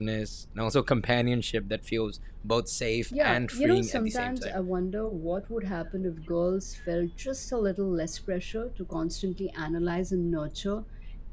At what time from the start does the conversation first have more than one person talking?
3.1 s

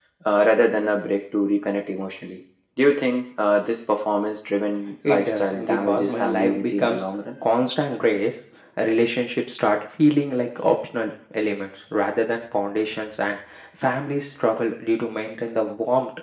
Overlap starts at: 5.0 s

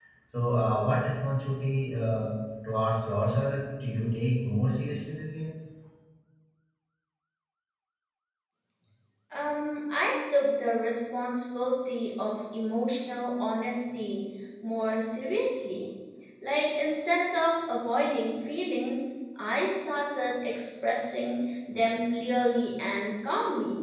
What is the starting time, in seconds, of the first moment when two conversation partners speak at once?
none

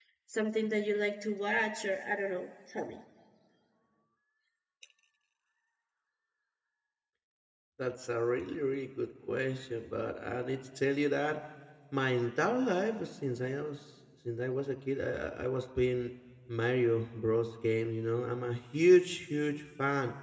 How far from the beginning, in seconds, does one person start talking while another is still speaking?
none

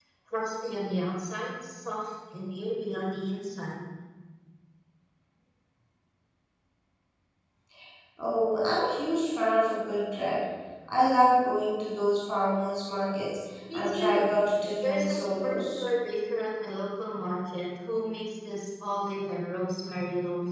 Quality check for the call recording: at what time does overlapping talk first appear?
13.7 s

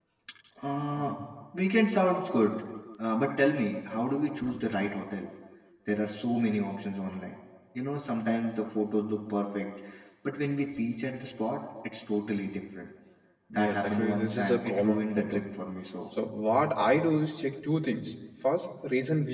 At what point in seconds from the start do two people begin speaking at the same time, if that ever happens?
13.5 s

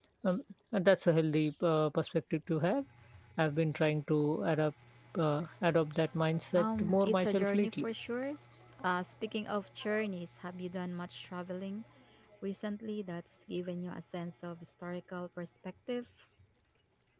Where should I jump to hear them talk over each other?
6.6 s

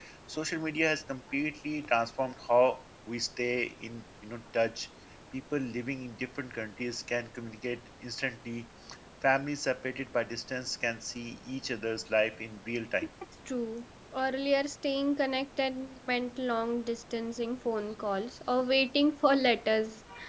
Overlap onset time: none

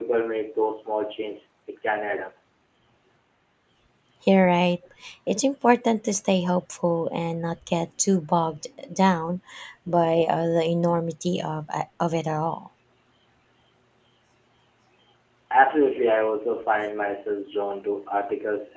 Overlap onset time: none

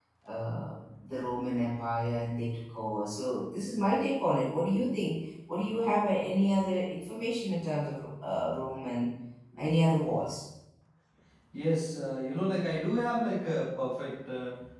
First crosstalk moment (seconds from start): none

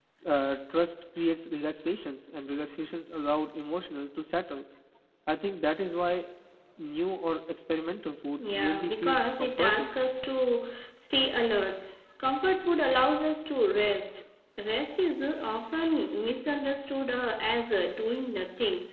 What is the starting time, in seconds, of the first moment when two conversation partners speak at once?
8.4 s

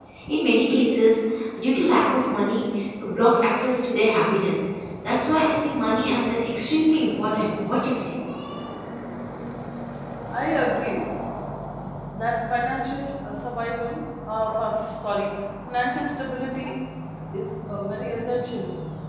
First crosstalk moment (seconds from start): none

